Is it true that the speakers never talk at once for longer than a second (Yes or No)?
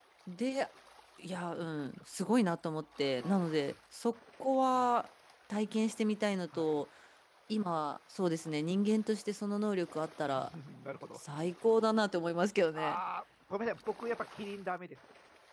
Yes